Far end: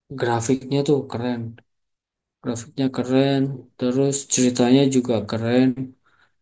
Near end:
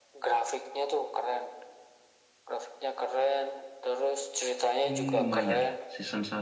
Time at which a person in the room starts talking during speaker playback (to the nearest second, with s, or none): 5 s